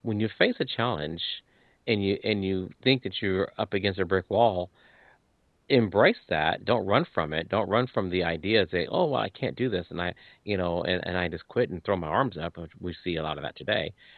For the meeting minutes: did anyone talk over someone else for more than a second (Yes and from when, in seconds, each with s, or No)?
No